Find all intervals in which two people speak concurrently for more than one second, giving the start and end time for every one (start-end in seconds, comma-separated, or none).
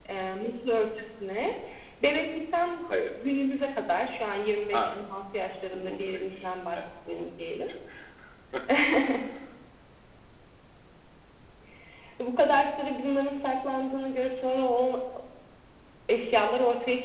5.7-7.2